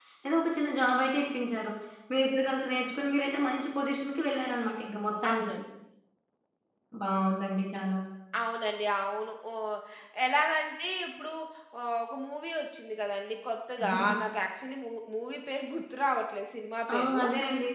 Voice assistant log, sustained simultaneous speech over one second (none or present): none